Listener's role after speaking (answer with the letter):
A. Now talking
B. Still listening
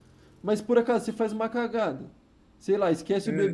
B